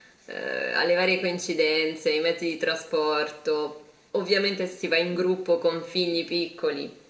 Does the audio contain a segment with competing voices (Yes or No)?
No